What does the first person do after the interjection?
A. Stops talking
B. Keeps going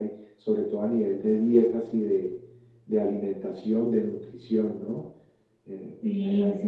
A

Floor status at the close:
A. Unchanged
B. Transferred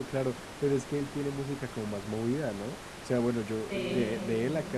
A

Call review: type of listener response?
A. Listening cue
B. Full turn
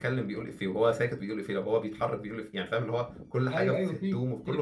B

